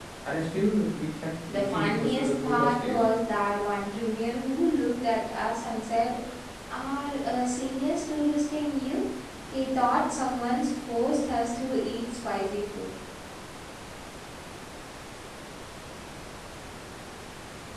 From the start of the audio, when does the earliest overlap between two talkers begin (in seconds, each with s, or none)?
1.5 s